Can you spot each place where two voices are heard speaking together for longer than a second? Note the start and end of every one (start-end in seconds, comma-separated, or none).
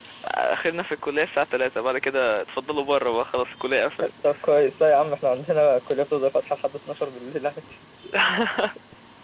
none